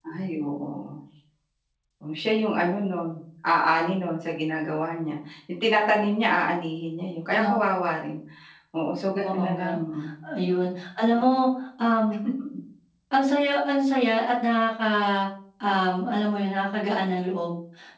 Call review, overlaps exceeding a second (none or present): none